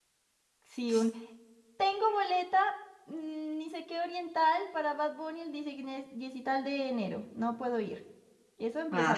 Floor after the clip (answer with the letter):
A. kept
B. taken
B